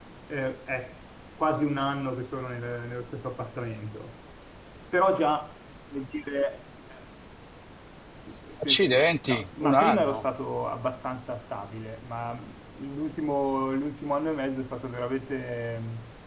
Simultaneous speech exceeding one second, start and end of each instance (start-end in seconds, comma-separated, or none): 8.7-10.2